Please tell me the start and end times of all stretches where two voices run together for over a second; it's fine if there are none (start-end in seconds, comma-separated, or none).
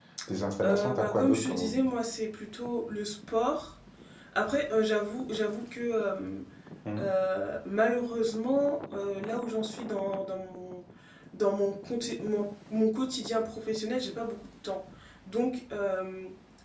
0.6-1.9